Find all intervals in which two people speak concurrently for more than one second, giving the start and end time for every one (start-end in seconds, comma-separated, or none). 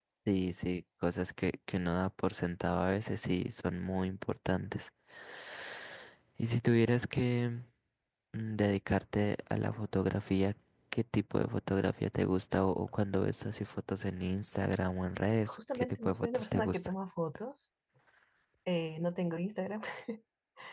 15.4-16.9